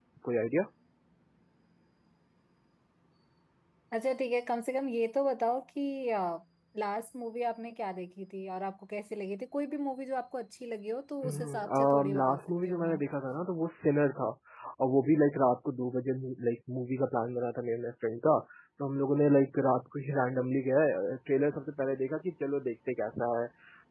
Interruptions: present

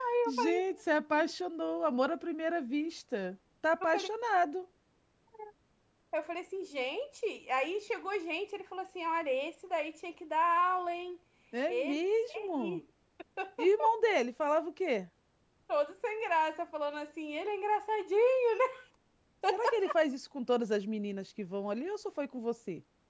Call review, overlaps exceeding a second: none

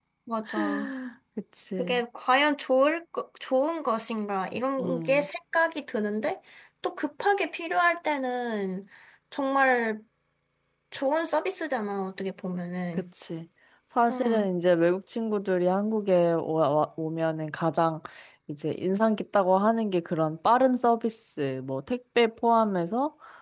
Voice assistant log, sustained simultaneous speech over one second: none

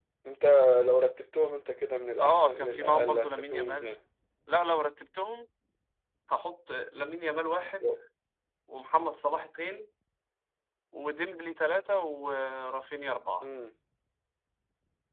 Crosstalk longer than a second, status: present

